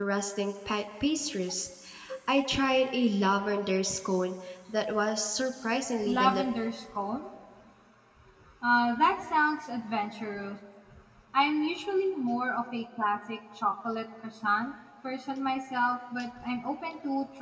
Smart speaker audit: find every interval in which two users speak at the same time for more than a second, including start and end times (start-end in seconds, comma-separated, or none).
none